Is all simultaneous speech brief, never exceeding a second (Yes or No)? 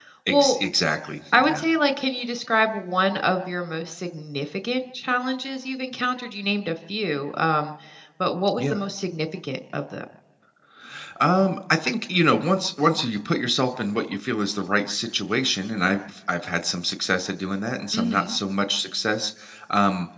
Yes